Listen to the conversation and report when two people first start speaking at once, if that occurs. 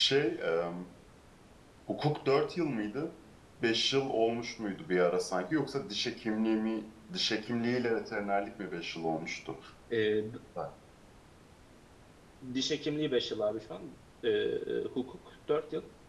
none

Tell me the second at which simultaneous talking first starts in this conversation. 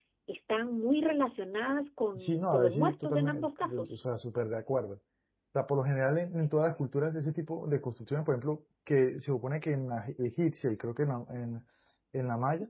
2.1 s

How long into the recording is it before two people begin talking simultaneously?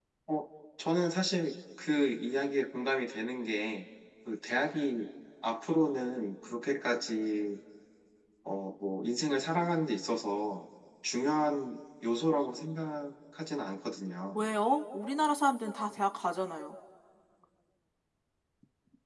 none

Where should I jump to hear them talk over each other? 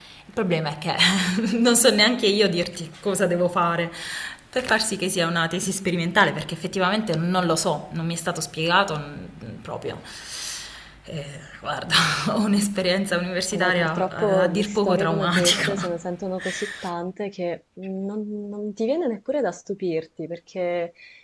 13.5 s

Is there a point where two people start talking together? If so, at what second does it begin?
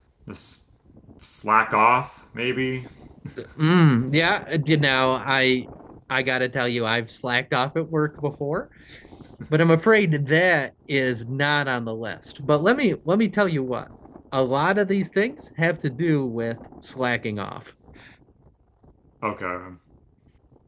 none

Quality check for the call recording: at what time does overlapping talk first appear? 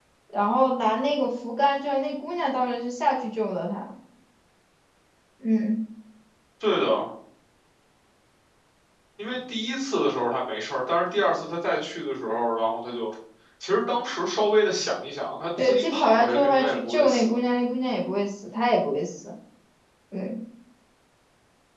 15.6 s

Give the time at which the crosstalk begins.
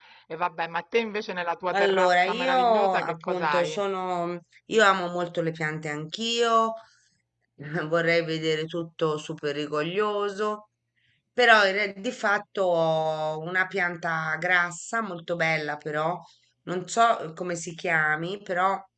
1.7 s

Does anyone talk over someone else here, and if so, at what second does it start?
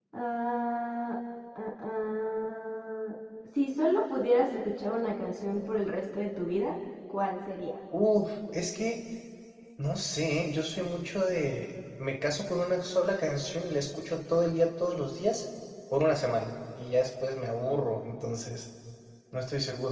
none

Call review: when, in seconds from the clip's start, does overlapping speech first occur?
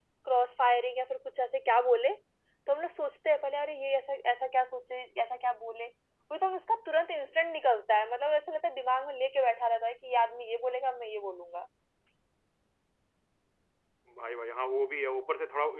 none

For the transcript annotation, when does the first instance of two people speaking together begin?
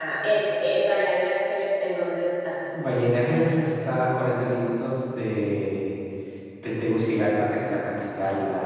none

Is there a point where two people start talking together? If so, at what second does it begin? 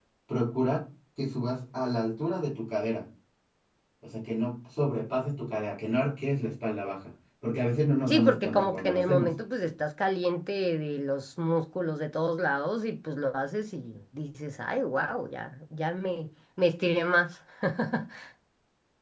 8.1 s

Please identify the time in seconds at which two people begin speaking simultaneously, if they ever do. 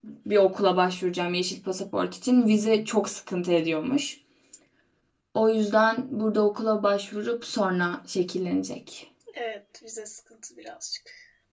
none

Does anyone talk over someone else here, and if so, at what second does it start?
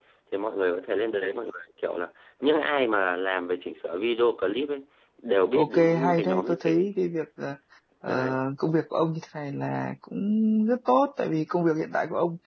5.6 s

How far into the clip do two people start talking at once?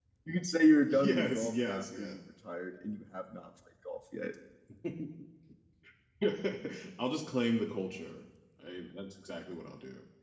0.9 s

